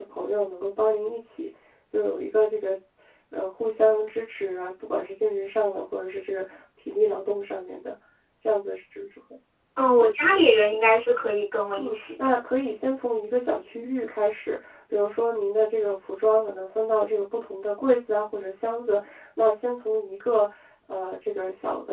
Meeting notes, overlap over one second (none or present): none